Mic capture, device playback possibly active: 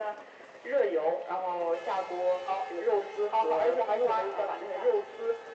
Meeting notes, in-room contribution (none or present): none